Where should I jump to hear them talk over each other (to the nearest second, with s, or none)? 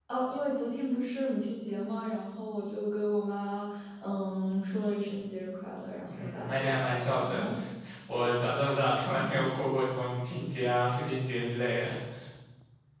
6 s